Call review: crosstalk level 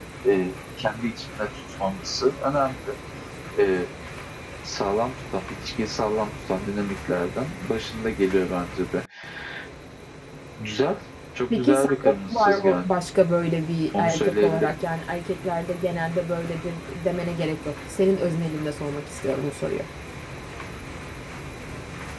present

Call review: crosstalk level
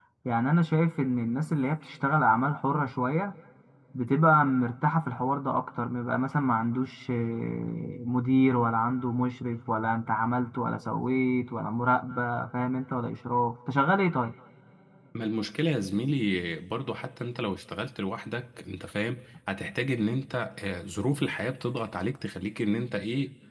none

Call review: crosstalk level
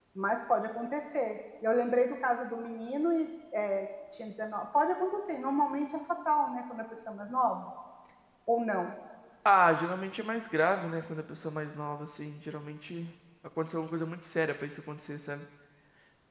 none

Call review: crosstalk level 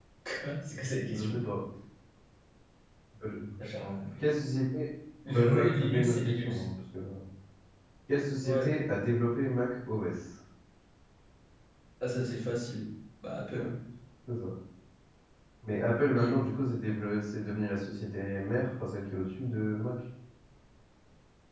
present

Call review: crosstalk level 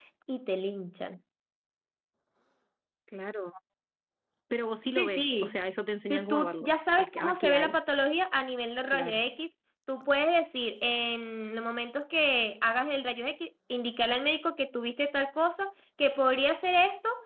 present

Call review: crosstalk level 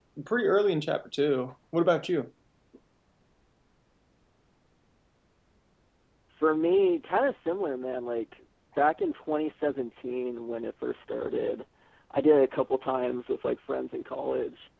none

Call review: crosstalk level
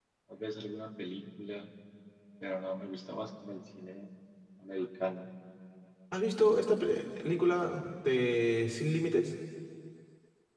none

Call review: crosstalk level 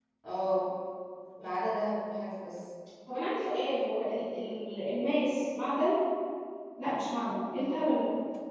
none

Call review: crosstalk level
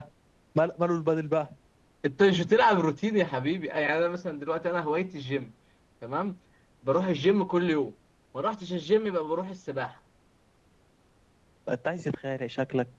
none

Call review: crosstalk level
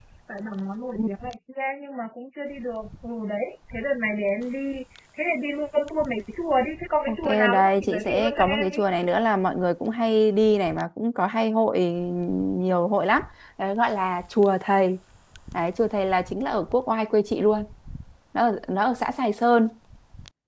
present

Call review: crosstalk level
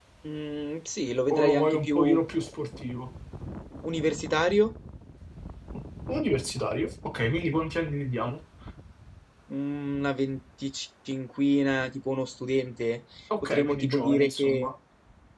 present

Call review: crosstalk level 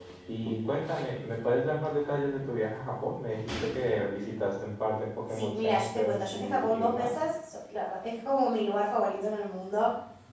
present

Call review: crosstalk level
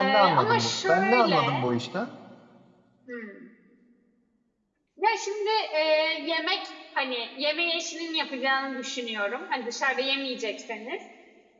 present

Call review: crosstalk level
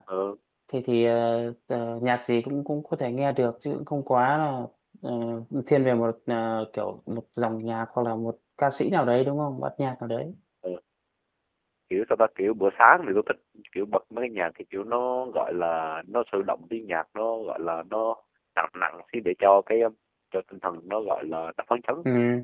none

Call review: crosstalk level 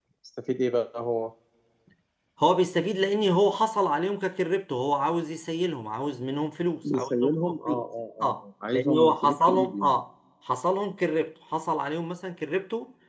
present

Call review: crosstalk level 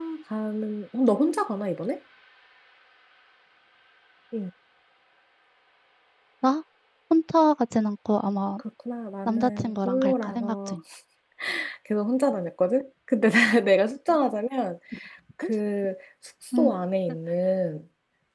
present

